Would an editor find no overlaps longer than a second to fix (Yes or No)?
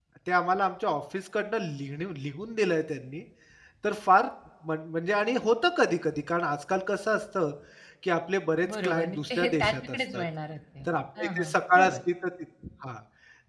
No